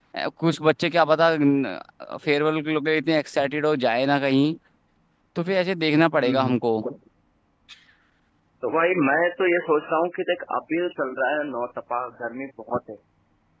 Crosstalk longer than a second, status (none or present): none